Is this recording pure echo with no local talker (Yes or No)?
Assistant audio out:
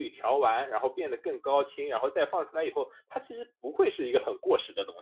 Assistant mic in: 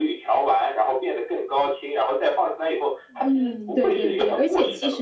No